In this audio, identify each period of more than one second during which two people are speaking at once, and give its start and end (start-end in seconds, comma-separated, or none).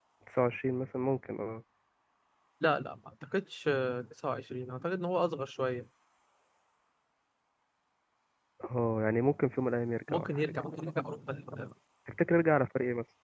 none